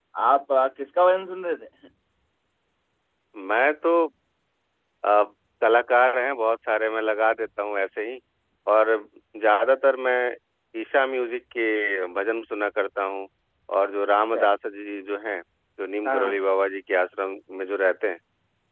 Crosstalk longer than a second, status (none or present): none